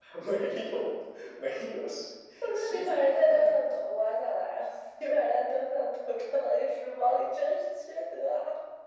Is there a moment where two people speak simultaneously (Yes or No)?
Yes